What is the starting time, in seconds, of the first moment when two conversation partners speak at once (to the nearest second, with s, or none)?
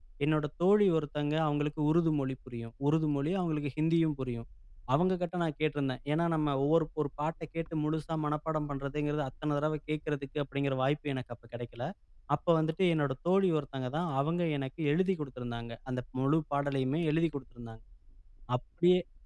none